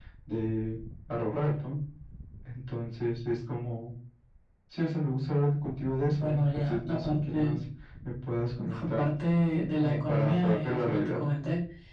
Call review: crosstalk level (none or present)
present